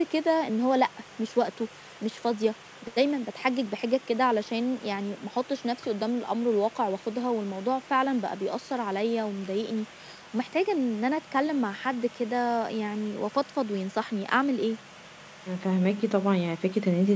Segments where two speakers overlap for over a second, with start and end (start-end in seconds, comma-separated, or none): none